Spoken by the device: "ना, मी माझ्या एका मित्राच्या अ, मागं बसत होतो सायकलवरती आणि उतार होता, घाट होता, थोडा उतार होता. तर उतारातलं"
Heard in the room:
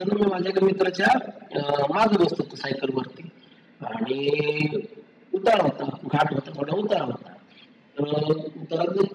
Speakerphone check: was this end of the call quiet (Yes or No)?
Yes